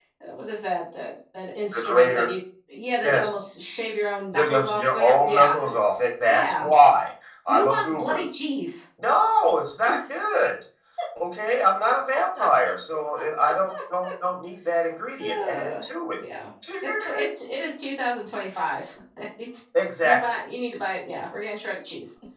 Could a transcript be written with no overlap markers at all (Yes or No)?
No